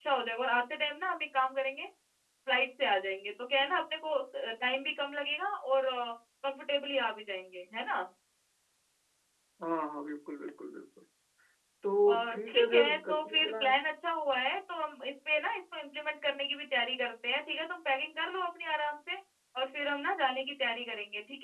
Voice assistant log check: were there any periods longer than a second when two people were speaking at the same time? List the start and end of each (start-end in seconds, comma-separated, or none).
12.1-13.8